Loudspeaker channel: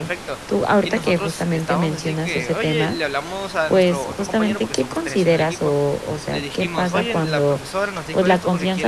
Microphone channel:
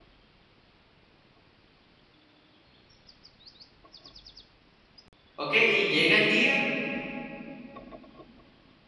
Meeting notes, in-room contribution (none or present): present